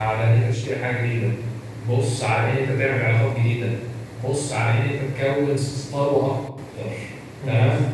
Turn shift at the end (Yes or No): No